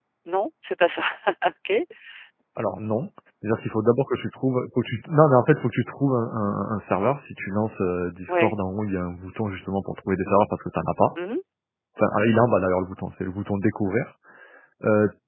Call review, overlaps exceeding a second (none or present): none